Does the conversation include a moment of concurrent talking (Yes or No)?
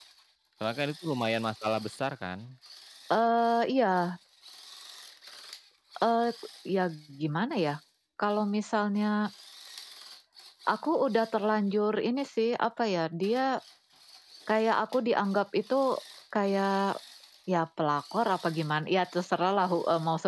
No